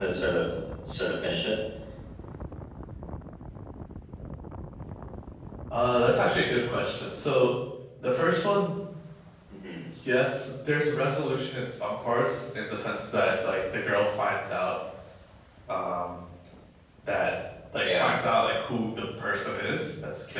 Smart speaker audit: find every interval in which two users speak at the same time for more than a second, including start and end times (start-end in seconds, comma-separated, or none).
none